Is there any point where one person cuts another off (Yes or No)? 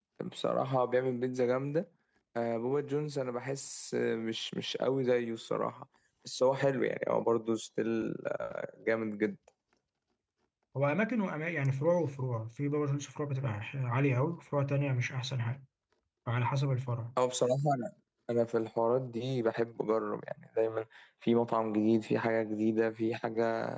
No